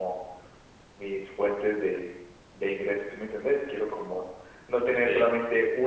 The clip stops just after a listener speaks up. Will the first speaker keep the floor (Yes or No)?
Yes